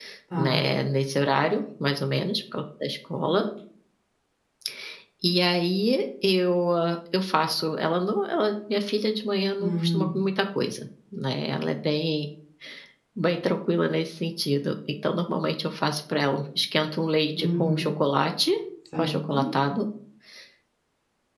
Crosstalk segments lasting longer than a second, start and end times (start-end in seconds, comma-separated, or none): none